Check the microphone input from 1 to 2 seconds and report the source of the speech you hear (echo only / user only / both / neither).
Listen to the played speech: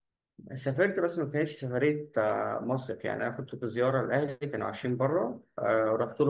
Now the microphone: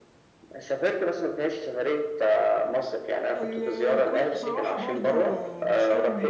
echo only